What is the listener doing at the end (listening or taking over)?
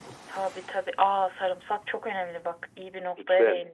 taking over